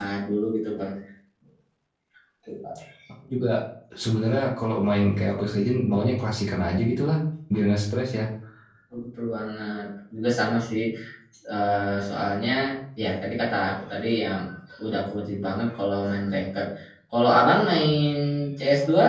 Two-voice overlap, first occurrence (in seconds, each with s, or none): none